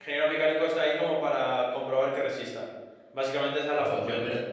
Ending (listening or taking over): taking over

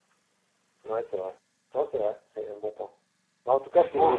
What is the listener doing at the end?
listening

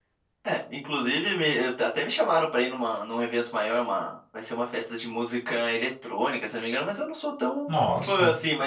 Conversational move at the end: listening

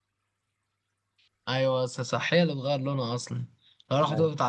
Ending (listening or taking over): listening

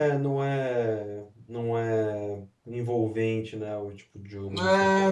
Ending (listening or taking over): taking over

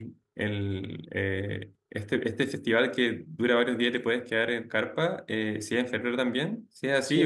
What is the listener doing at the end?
taking over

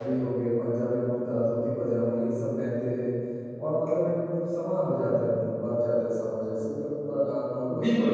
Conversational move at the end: taking over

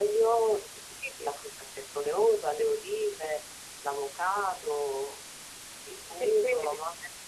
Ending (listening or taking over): taking over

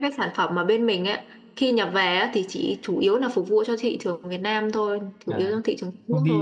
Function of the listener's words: taking over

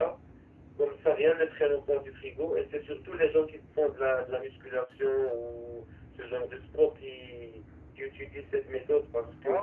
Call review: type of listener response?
listening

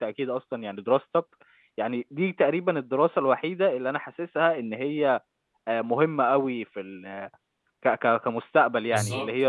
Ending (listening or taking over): taking over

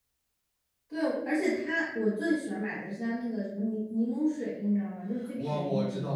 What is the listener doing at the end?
taking over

